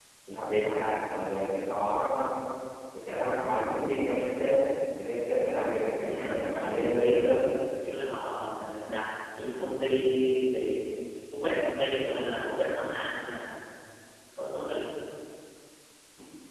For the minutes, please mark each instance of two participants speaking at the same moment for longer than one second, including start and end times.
6.0-7.4

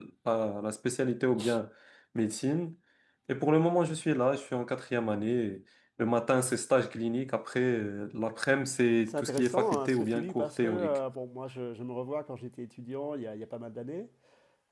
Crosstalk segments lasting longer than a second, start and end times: 9.1-11.0

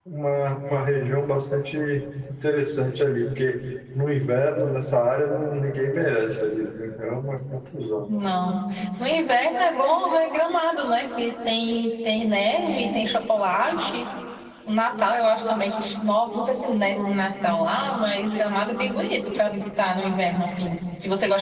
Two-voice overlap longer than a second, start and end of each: none

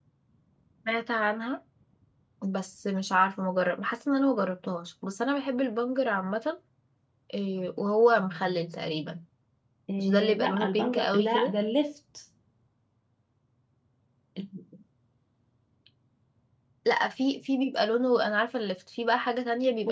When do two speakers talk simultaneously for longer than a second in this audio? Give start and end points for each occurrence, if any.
10.0-11.5

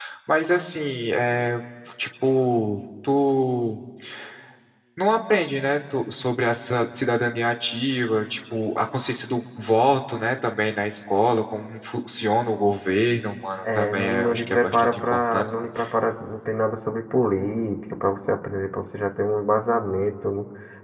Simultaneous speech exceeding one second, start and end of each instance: 13.6-15.4

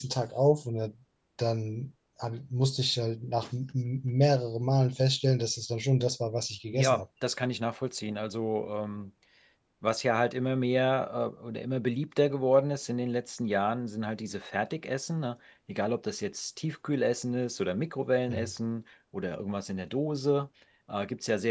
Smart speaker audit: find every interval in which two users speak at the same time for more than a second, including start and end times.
none

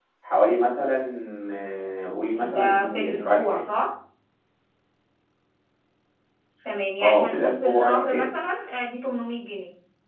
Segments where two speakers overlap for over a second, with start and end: 2.4-3.6, 7.0-8.3

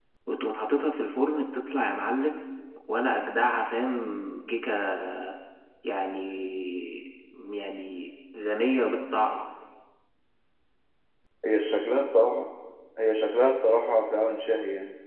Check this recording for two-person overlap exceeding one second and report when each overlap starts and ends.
none

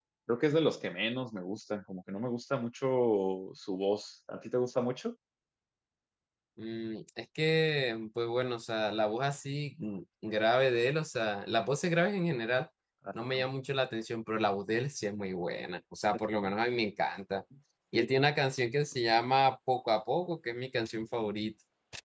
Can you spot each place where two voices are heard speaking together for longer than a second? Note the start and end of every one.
none

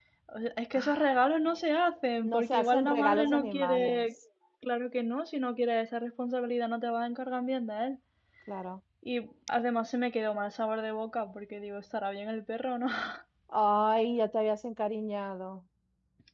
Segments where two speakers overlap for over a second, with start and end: 2.2-4.0

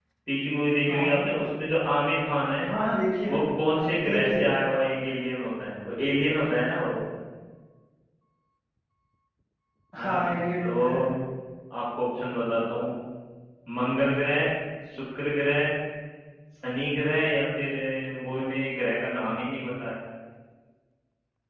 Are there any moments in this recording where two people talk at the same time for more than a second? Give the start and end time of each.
none

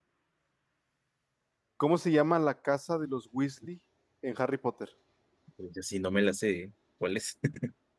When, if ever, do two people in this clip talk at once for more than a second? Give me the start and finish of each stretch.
none

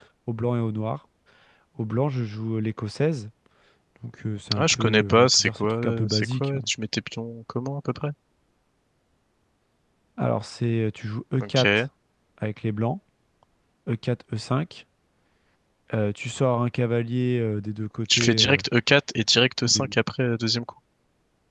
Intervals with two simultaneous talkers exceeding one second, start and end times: 4.6-6.6

